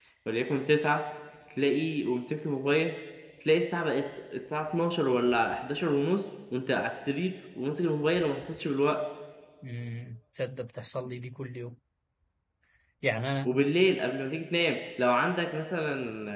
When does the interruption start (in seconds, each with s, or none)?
none